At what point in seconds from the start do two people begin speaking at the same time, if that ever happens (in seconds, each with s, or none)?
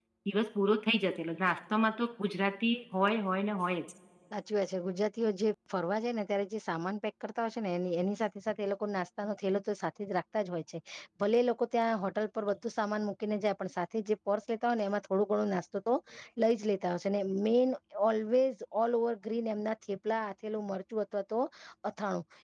none